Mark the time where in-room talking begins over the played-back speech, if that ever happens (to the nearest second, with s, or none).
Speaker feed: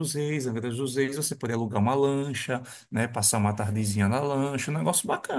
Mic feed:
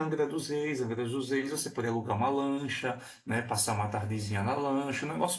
none